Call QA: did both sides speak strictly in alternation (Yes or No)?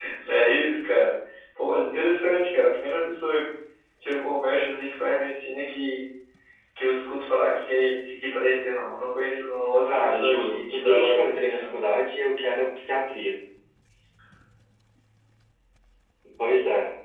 No